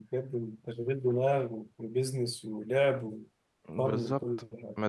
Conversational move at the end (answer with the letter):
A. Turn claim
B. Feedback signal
A